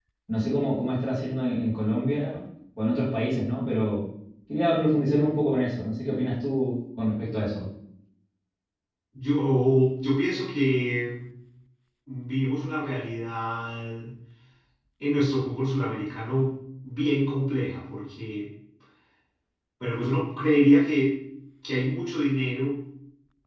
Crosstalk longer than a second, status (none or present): none